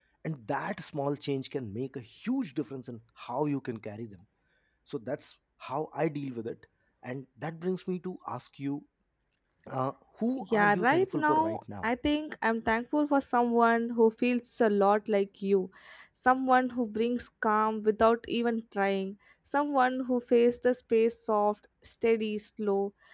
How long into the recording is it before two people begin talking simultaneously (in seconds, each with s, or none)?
10.4 s